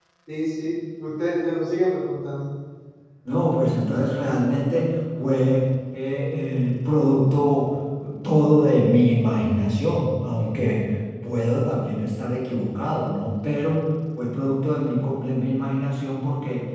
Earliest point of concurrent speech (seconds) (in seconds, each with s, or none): none